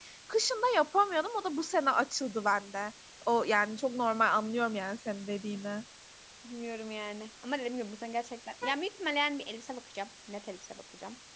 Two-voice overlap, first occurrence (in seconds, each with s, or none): none